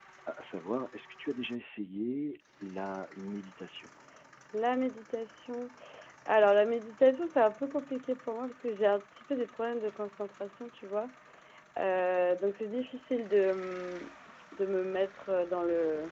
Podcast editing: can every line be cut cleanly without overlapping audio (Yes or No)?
Yes